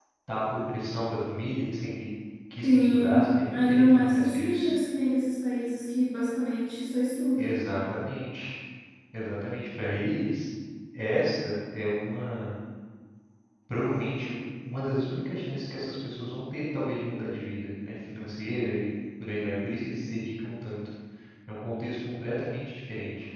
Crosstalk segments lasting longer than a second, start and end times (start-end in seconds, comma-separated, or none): 2.6-4.7